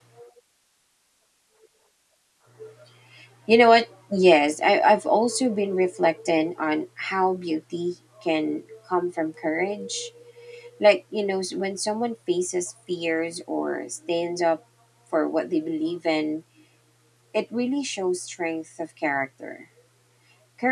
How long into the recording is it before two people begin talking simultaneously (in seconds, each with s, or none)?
none